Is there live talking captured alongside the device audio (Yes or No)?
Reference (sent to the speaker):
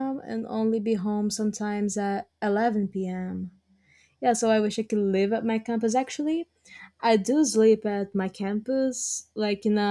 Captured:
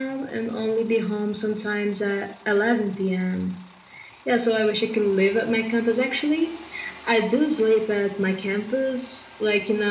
No